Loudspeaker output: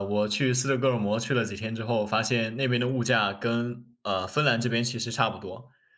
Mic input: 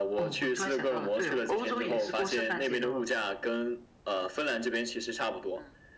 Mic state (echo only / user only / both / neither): both